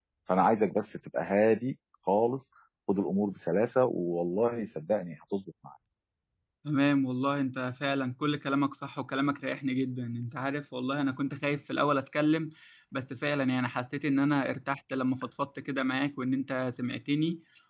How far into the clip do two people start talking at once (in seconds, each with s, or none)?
none